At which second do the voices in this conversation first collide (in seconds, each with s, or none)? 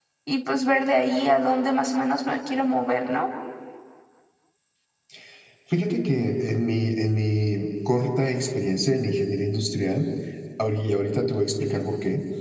none